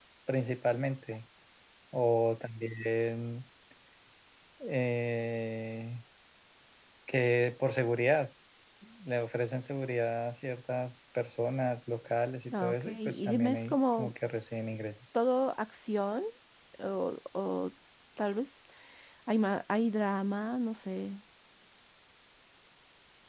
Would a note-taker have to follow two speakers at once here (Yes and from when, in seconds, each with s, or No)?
Yes, from 12.5 s